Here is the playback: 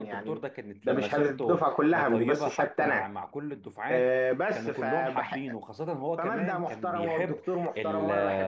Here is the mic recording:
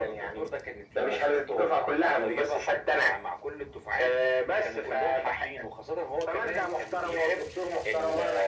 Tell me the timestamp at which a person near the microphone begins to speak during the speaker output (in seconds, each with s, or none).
none